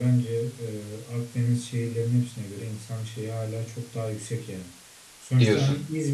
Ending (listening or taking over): listening